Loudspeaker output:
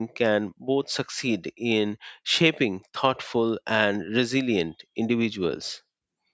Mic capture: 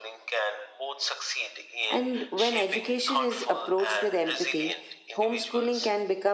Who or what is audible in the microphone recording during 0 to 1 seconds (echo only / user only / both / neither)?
echo only